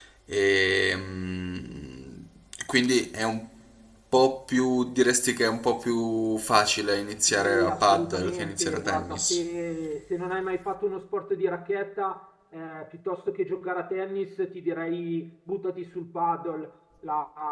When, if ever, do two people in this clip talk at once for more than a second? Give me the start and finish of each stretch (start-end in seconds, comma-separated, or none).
7.3-9.4